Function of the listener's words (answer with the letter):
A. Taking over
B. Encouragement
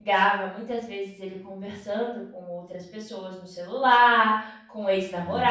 B